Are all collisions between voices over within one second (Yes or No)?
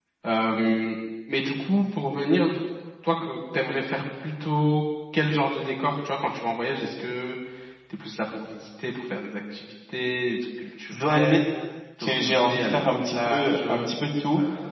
No